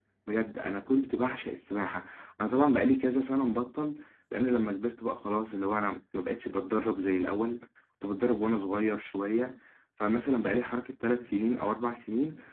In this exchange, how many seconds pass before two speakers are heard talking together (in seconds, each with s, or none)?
none